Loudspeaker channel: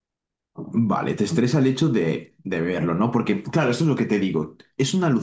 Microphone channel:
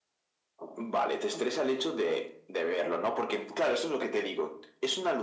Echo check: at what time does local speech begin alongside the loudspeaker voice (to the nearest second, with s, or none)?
none